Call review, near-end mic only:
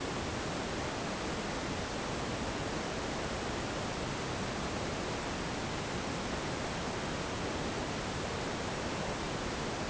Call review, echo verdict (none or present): none